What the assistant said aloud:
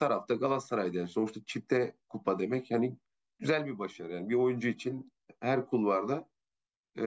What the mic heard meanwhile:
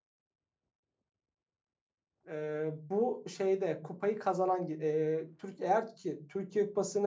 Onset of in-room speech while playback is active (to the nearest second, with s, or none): 2 s